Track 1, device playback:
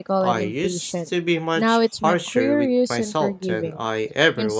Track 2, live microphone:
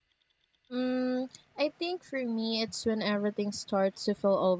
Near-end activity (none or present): present